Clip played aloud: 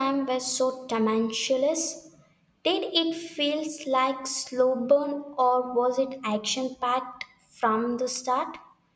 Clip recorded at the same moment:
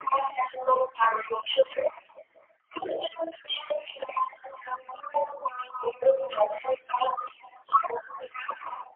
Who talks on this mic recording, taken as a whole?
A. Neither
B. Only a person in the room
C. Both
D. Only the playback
D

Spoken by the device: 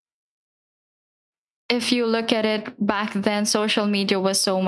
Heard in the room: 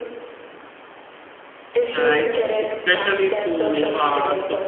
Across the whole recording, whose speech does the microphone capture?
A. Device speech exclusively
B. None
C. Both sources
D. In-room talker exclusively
C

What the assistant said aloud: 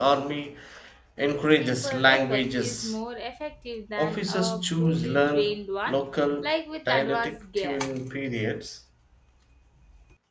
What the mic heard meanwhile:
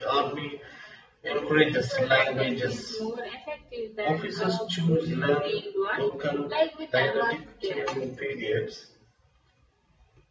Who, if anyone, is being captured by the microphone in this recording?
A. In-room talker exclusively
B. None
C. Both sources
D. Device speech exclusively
D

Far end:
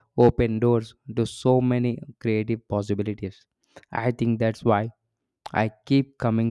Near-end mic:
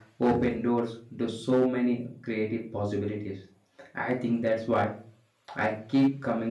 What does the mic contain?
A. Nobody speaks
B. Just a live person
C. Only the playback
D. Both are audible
C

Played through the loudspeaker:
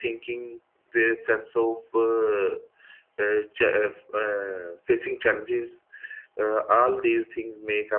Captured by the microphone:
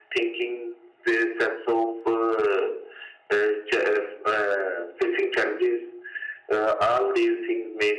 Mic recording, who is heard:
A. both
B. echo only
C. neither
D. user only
B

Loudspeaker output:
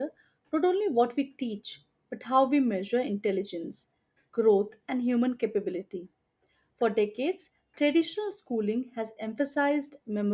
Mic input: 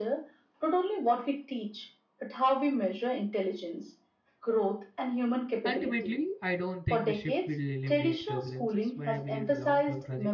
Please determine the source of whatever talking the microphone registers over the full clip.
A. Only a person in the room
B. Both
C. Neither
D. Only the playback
B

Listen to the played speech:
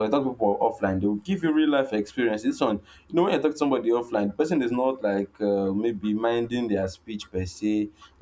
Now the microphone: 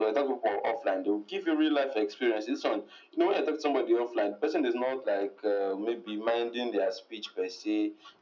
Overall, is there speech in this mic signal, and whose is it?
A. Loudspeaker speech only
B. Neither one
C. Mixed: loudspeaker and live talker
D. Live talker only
A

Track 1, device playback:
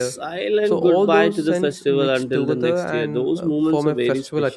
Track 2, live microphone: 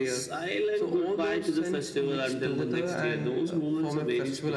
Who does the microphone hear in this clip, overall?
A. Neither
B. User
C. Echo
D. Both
C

